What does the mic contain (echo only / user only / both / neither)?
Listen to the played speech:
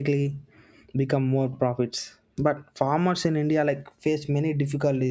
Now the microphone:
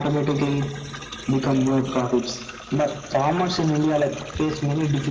echo only